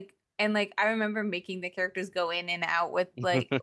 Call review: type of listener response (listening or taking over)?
listening